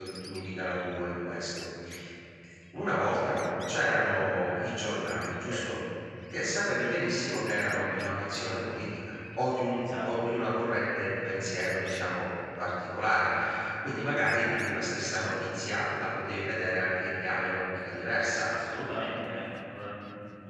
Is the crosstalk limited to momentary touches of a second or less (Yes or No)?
Yes